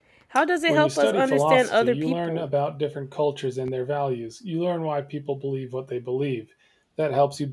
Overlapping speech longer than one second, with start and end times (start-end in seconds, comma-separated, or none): 0.7-2.4